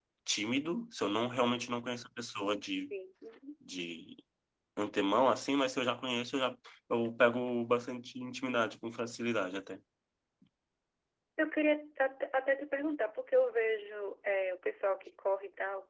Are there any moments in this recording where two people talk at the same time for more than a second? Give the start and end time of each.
none

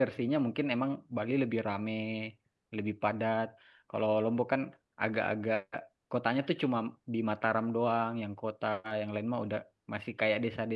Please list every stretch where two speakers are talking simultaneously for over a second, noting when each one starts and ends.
none

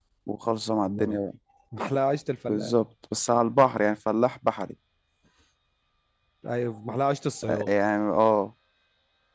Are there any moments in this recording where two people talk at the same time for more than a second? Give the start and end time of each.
none

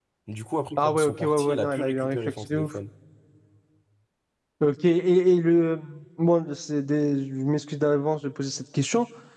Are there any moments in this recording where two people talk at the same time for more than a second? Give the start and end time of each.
0.8-2.7

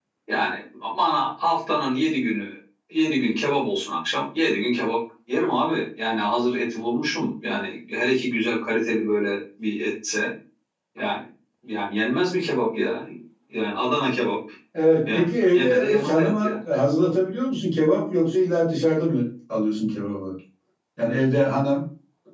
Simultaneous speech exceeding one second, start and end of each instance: 15.1-16.5

